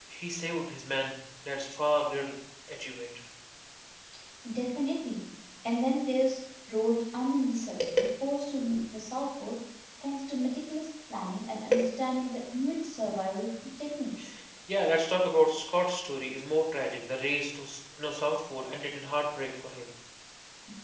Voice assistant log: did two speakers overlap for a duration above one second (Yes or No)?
No